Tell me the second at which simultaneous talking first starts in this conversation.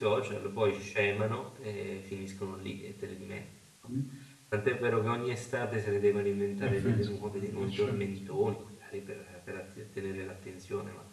6.6 s

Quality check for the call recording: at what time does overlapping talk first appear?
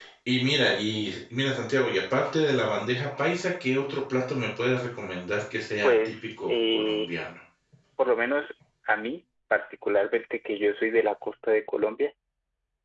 5.8 s

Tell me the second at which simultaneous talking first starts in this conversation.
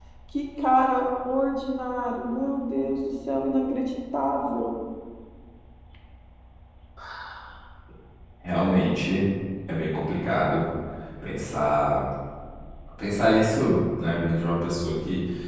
none

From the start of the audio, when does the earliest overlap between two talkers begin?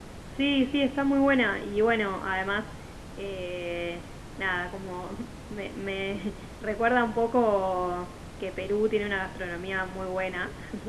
none

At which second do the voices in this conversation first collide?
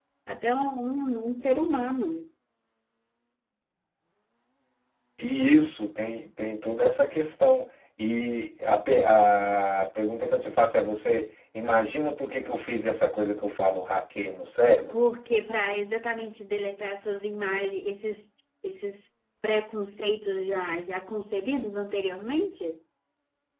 none

